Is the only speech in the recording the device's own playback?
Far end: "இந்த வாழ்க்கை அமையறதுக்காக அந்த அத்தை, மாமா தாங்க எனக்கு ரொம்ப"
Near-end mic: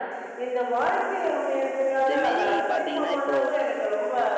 No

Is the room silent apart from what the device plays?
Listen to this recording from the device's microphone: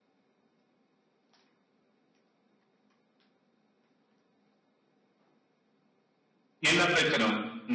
No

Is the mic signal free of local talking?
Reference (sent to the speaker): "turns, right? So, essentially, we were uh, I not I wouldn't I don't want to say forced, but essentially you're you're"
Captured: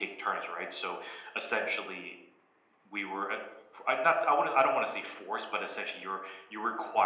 Yes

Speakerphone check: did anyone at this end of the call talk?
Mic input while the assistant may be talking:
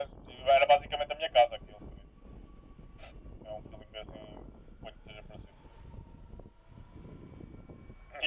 No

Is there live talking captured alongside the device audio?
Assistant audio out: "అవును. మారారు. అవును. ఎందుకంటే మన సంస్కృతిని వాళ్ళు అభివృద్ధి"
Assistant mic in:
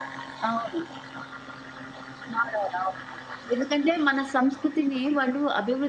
No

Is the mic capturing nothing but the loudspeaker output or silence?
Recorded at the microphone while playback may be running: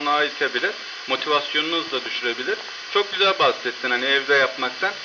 Yes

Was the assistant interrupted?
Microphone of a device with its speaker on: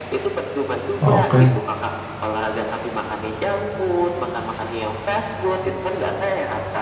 Yes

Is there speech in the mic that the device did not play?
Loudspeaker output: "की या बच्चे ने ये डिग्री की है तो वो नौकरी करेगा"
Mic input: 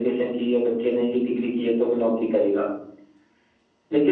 No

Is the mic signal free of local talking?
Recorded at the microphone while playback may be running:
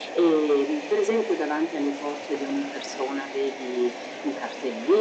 Yes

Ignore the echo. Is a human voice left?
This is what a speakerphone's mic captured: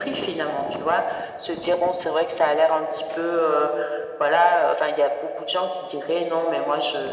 No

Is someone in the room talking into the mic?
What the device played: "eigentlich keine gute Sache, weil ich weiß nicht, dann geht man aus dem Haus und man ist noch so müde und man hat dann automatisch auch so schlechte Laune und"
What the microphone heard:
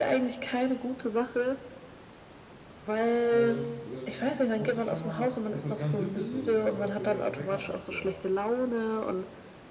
Yes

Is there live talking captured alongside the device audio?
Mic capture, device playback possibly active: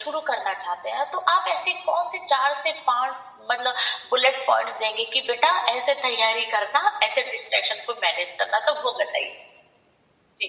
No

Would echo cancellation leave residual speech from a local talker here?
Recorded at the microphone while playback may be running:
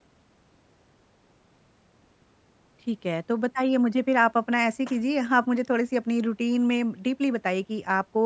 Yes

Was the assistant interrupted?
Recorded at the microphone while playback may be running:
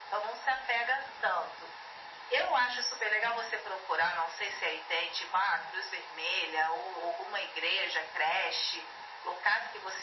No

